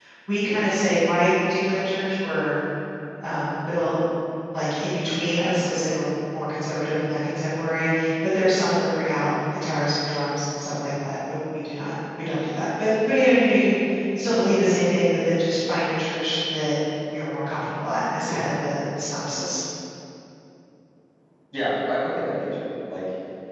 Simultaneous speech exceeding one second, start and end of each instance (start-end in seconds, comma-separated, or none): none